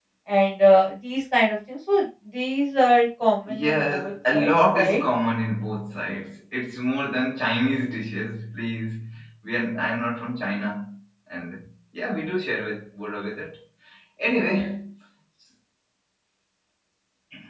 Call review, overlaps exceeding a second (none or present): present